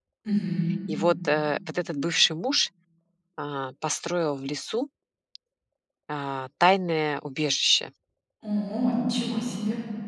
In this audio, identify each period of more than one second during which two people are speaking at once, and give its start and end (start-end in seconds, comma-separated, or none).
none